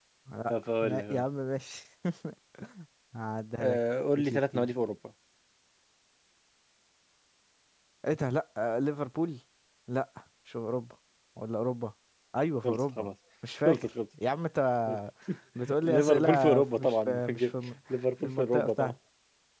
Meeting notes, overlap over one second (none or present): present